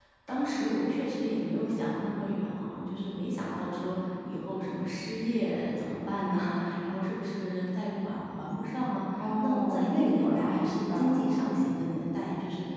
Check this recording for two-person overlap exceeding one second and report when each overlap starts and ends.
9.4-11.2

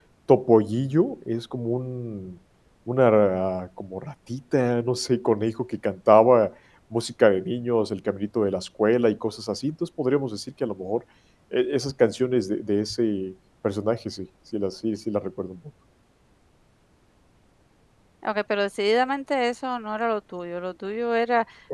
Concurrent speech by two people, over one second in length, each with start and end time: none

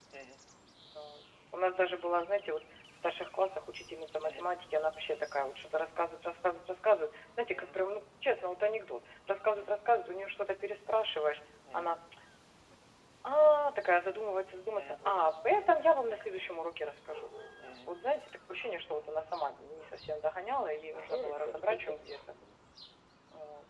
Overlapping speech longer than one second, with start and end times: 20.9-22.2

